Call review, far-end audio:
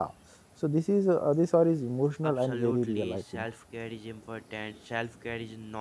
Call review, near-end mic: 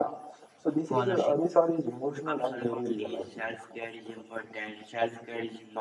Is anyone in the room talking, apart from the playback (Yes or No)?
Yes